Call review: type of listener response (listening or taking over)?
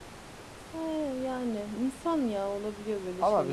taking over